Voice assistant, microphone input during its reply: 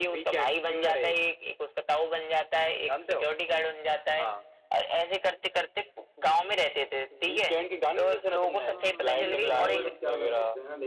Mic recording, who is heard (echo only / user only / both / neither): both